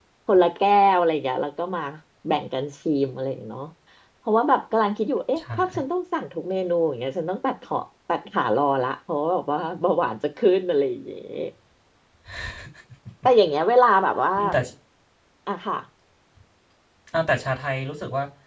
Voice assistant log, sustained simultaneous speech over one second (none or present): none